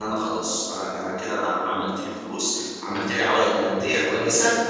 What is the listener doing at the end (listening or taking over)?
taking over